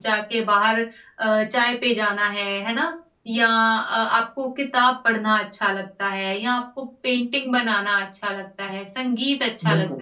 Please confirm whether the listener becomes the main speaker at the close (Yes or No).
No